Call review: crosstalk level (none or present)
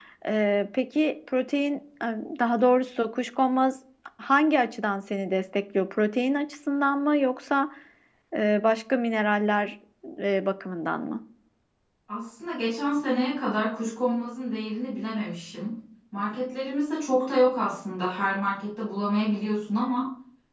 none